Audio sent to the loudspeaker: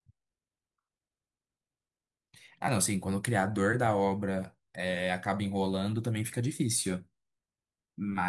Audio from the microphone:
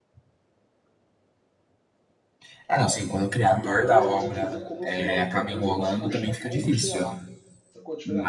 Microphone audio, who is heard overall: both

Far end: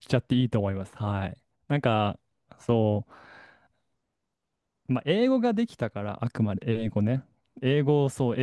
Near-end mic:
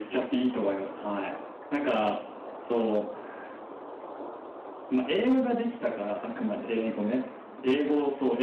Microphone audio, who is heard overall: echo only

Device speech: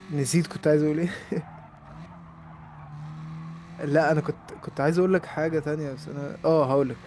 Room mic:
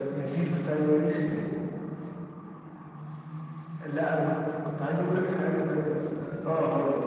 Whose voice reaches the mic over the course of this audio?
echo only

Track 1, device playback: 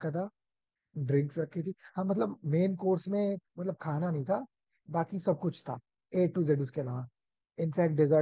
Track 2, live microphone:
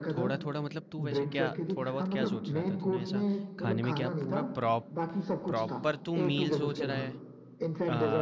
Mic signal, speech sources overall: both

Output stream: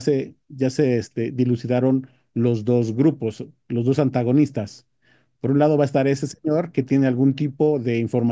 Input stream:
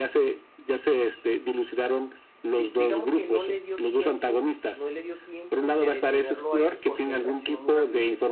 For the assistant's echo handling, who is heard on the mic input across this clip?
both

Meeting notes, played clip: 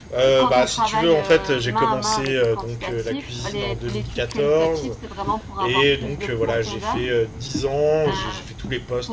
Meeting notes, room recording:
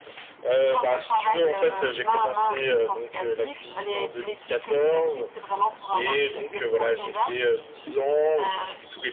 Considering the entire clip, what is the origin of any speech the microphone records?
echo only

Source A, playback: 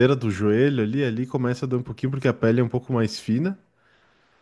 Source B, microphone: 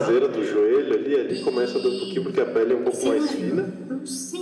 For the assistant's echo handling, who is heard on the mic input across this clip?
both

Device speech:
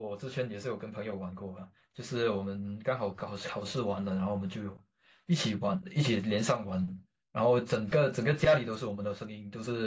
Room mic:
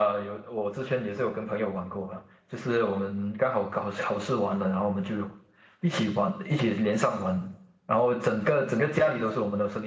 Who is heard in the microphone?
echo only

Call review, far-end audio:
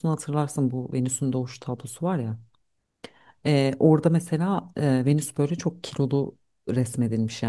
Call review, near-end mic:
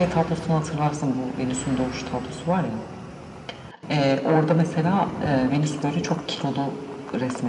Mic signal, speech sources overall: echo only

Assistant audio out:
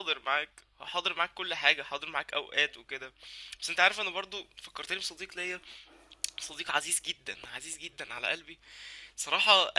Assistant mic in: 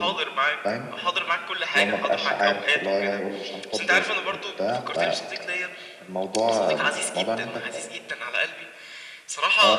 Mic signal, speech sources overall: both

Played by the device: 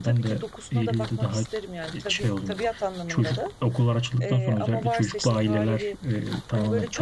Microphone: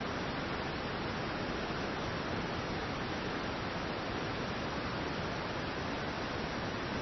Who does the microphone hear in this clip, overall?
neither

